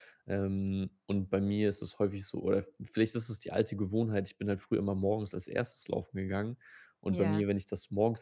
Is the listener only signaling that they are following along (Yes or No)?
Yes